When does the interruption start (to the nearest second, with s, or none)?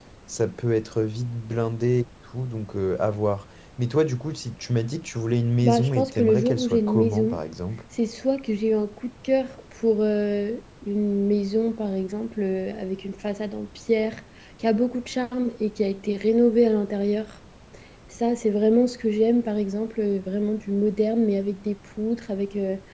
6 s